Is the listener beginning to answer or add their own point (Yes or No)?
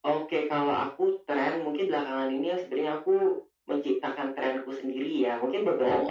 No